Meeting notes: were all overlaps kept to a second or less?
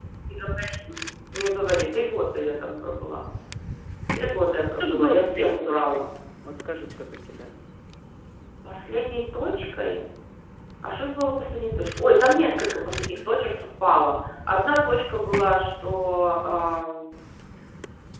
No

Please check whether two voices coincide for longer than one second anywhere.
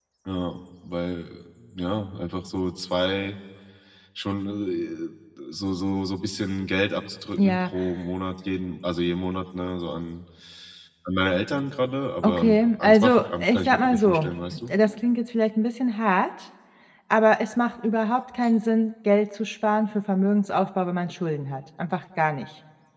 Yes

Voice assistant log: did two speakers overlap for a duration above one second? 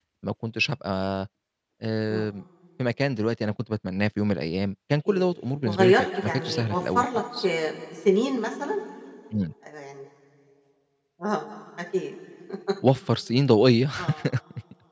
Yes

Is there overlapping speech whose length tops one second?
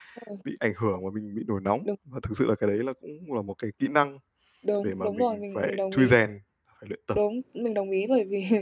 Yes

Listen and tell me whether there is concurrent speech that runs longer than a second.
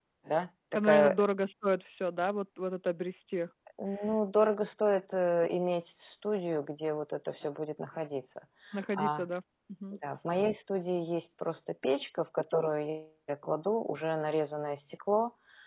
No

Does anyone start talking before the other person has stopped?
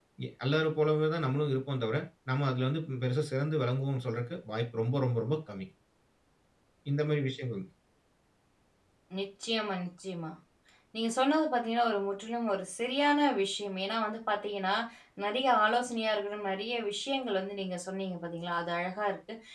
No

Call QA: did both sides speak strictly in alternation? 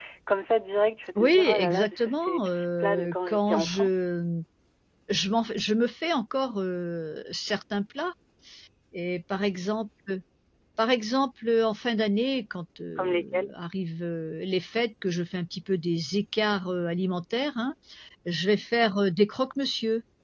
No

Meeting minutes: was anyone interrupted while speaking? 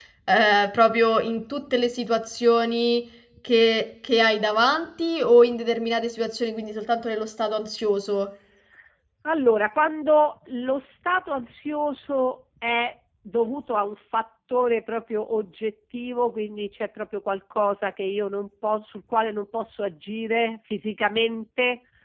No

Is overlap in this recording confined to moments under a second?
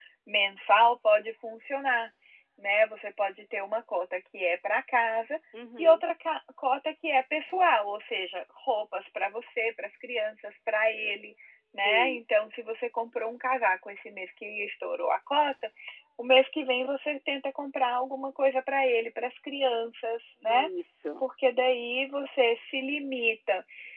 Yes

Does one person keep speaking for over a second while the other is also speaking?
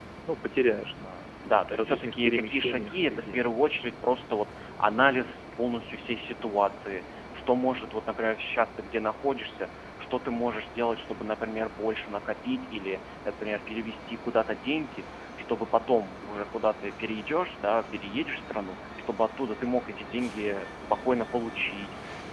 Yes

